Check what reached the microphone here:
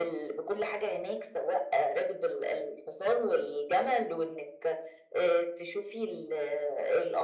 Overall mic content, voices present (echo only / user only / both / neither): echo only